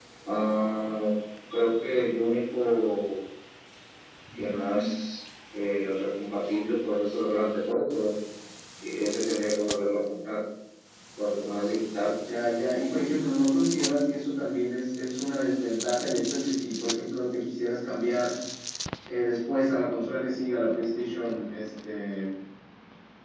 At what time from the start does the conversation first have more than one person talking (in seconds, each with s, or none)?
none